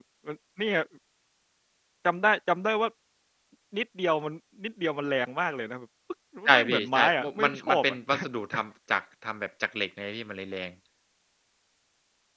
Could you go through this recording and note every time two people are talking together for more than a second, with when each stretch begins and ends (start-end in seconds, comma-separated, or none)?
6.5-8.0